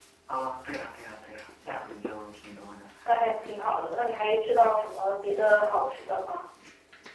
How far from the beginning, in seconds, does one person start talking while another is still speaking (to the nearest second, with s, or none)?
none